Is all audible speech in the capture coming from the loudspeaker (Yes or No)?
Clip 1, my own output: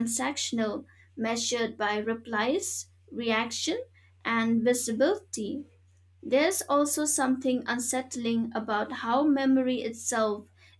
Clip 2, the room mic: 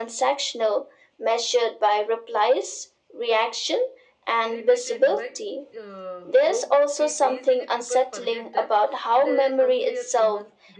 No